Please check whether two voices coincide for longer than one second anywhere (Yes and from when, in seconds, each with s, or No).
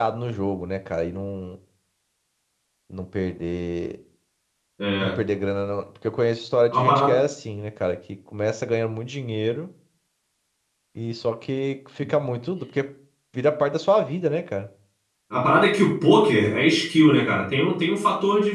No